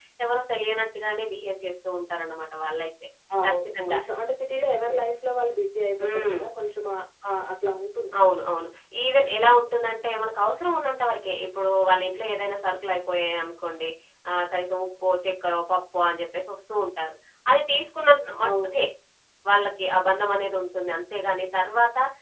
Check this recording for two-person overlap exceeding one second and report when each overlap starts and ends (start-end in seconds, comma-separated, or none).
none